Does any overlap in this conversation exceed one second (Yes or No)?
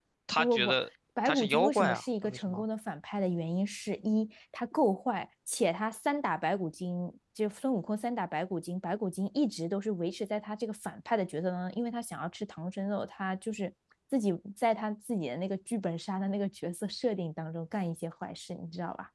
Yes